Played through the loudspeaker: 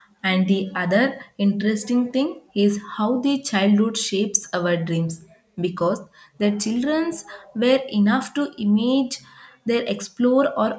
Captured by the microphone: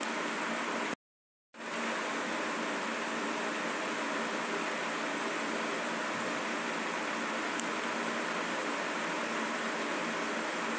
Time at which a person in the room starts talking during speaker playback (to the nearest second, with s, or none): none